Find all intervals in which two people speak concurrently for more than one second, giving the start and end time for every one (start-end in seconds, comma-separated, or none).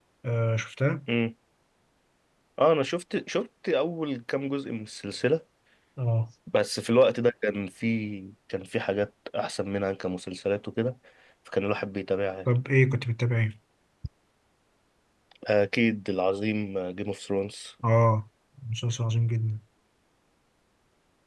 none